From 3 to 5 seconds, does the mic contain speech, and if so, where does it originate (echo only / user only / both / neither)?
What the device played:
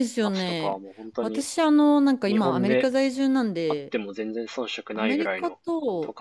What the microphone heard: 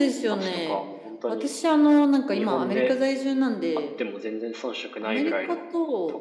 echo only